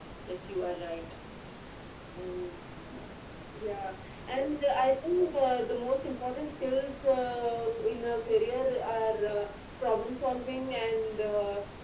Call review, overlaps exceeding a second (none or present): none